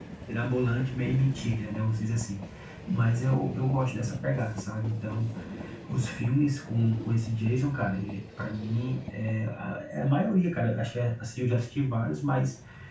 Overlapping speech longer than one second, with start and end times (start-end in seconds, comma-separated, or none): none